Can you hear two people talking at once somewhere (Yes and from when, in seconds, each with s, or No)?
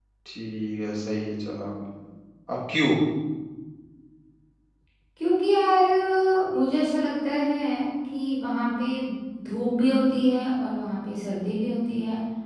No